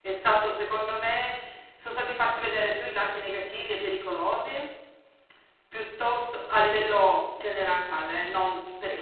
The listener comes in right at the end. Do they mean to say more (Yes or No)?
No